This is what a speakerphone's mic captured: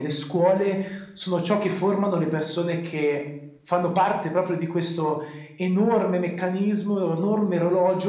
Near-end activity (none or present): none